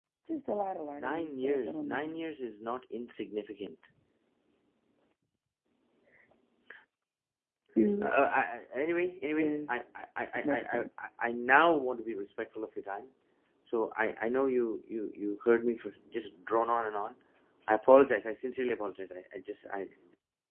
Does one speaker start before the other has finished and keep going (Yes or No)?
Yes